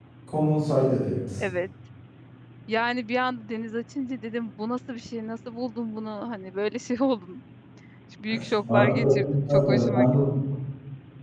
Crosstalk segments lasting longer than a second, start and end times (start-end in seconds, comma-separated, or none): 8.7-10.1